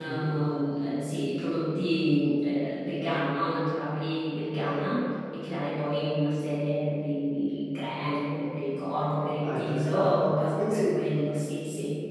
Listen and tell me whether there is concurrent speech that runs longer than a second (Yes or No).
Yes